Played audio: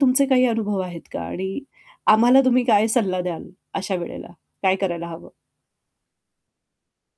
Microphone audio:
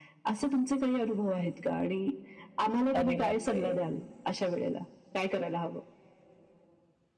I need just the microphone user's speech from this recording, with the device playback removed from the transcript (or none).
अरे बापरे!